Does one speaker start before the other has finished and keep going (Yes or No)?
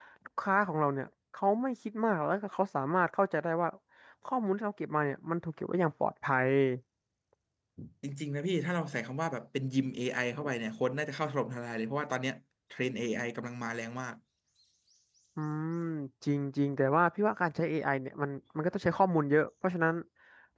No